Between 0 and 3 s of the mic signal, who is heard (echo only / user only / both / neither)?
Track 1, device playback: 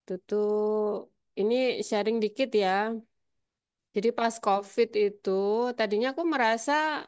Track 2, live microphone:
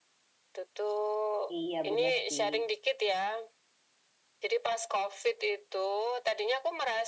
both